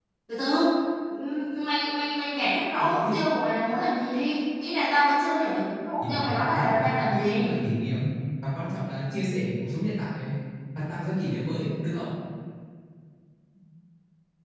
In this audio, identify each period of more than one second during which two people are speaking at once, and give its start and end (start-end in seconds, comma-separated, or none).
6.1-7.6